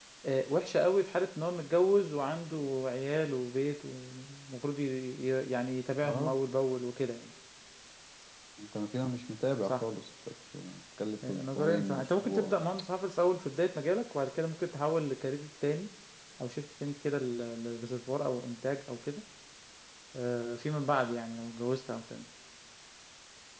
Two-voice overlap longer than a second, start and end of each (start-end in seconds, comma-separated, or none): 11.3-12.5